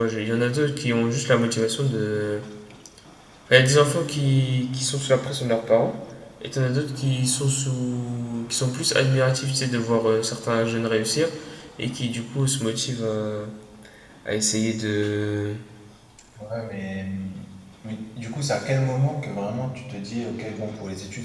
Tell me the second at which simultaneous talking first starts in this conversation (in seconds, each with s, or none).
none